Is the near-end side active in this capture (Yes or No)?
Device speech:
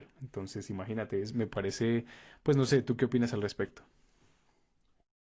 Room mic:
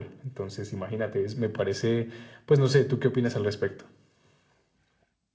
No